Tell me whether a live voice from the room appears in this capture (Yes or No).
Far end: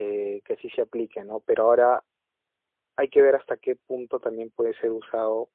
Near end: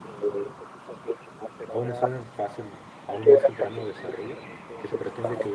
Yes